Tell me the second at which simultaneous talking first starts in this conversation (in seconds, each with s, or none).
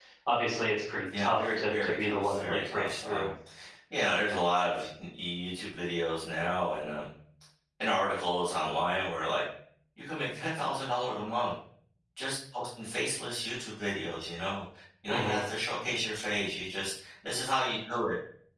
1.2 s